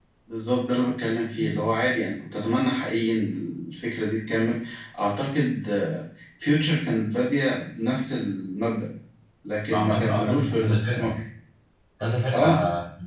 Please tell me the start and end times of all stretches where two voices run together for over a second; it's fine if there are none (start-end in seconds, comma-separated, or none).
9.7-11.2